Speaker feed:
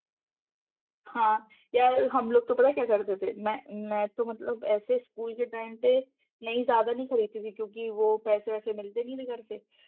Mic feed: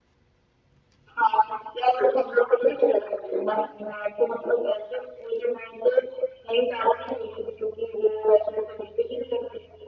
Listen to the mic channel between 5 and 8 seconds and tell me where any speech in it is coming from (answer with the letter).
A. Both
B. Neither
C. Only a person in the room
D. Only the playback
D